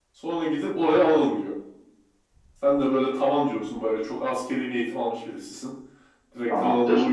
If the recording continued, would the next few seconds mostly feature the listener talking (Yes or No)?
No